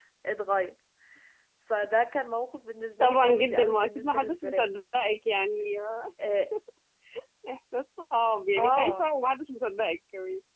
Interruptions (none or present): present